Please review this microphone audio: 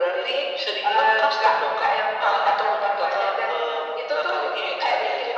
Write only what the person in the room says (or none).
none